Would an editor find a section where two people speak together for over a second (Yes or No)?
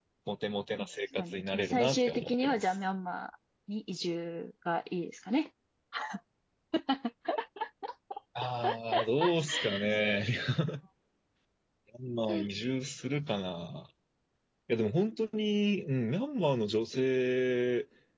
Yes